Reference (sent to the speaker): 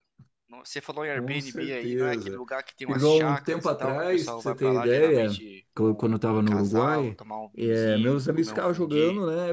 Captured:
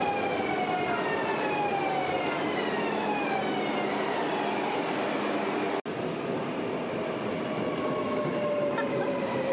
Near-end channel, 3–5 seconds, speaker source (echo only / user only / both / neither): neither